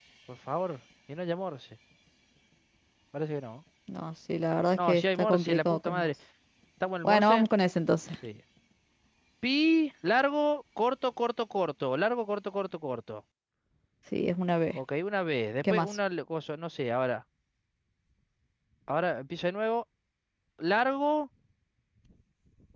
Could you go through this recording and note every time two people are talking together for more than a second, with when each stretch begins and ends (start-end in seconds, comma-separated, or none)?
4.8-6.1